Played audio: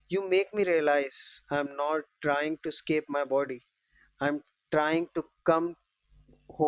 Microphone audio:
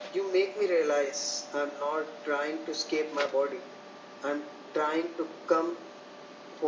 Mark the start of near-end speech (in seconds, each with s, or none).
none